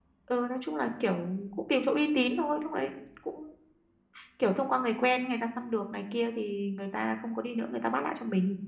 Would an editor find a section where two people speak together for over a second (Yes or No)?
No